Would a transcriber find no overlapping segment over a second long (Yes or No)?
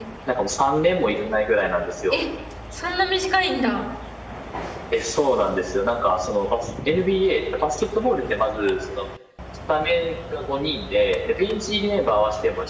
Yes